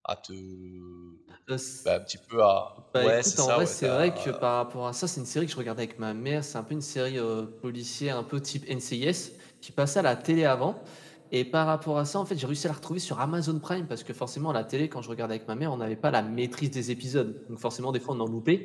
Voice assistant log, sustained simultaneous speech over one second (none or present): present